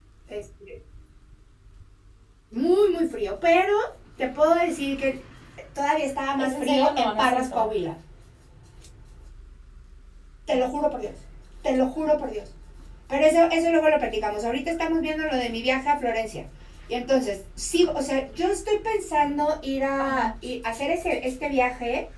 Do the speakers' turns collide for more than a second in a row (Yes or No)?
Yes